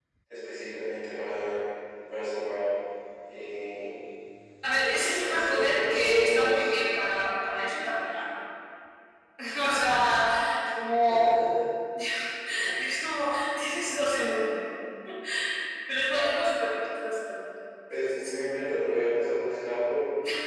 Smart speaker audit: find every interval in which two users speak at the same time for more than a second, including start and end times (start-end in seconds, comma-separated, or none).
5.3-6.7